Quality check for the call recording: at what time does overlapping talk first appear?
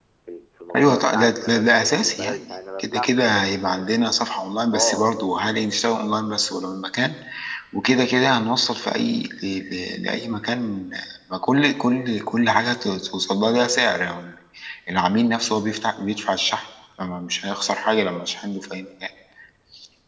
0.8 s

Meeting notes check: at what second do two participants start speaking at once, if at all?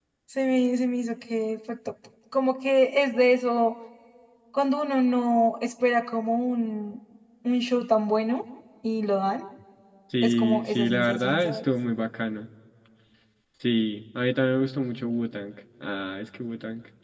10.2 s

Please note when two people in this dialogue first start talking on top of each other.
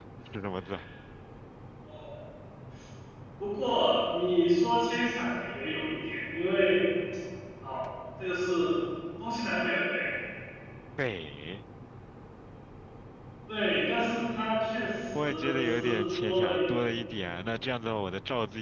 15.2 s

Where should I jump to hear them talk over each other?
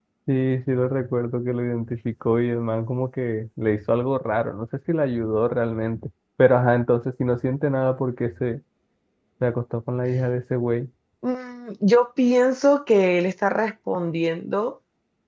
none

